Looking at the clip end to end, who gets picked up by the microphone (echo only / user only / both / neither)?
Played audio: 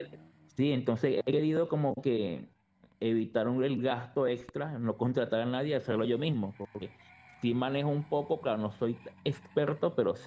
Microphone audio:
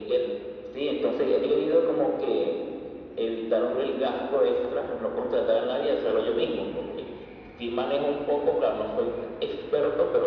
echo only